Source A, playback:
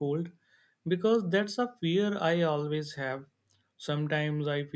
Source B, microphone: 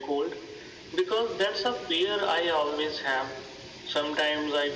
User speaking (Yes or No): No